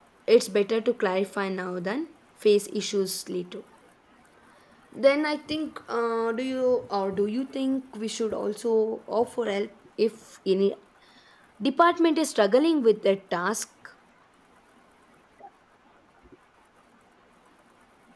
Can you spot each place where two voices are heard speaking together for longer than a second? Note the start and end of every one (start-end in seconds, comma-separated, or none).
none